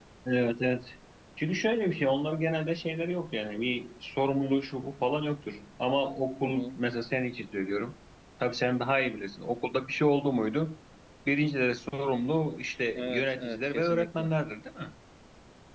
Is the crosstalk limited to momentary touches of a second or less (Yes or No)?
No